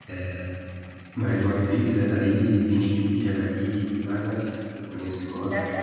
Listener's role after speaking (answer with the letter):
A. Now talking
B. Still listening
A